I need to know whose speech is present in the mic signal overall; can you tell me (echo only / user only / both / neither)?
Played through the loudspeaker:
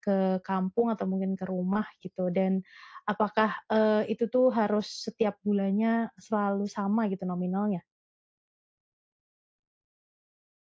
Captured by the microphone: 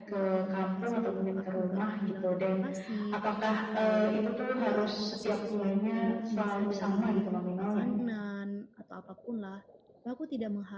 both